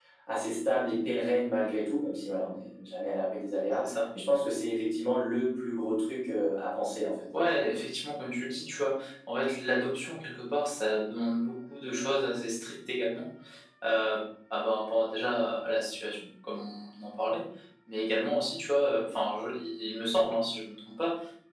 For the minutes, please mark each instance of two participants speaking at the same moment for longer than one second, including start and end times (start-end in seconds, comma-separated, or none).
none